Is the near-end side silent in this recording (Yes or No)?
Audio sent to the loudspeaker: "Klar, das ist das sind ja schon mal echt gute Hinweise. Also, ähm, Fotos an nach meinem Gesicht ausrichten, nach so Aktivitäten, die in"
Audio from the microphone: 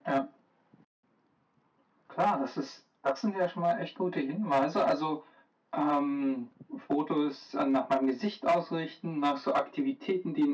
Yes